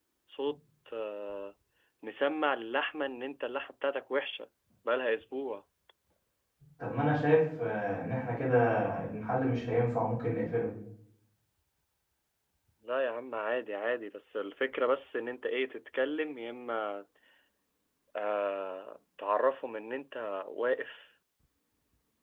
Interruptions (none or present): none